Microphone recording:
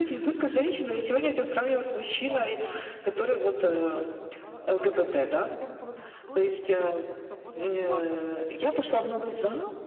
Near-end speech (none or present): present